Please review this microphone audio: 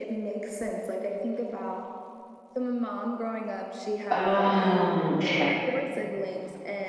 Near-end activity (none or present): present